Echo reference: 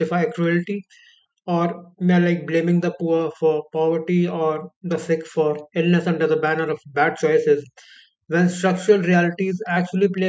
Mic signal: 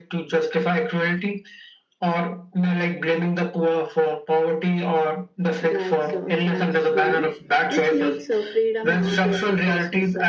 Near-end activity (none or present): present